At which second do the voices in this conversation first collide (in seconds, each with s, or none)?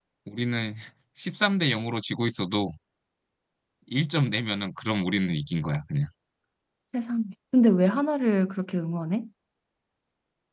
none